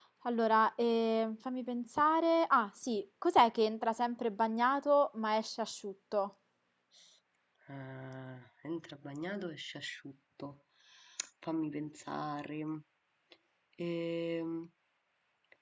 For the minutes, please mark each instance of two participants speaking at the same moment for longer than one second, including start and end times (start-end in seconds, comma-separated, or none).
none